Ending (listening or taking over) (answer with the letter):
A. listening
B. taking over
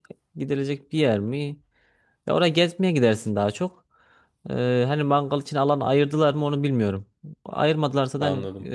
A